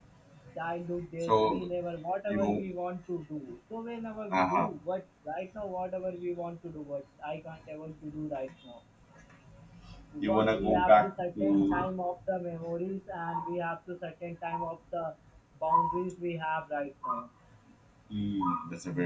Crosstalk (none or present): present